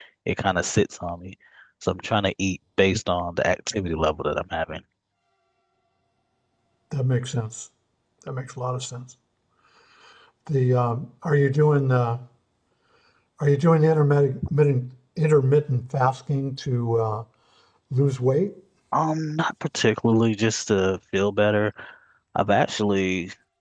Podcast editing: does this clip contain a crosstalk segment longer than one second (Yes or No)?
No